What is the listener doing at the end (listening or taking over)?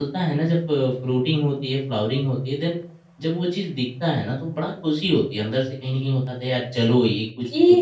taking over